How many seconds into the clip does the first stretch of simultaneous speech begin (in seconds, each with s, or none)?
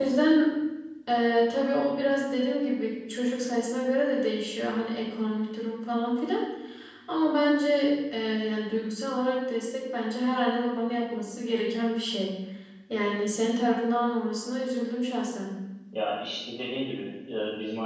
none